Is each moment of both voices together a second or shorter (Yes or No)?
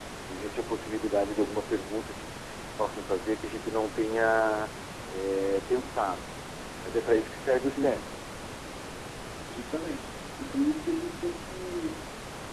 Yes